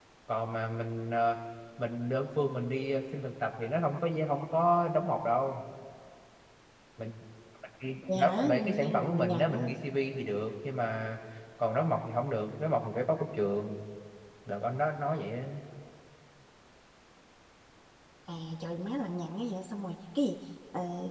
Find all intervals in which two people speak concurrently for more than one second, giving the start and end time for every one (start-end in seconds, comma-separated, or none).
8.1-9.7